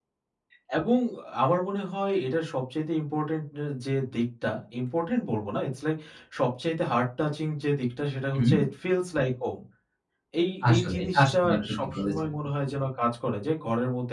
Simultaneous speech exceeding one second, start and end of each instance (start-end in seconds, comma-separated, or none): 10.7-12.2